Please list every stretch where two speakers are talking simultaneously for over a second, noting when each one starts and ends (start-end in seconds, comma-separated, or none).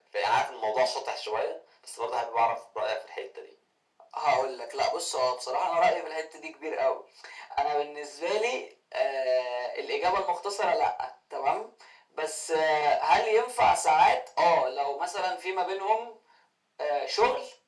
none